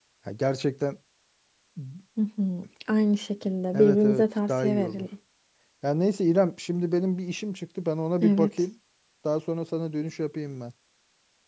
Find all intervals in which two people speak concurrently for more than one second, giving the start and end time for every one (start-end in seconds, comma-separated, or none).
3.7-5.1